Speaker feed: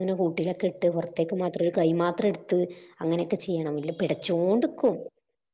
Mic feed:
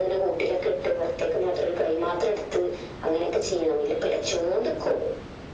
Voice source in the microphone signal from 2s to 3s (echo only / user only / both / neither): echo only